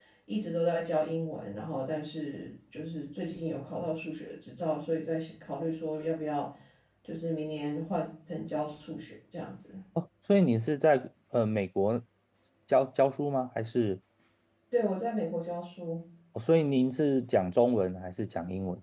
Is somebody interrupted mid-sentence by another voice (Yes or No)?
No